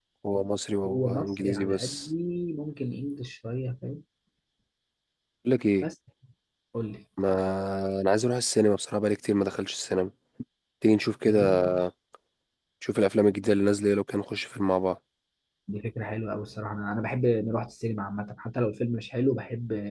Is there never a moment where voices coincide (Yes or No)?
No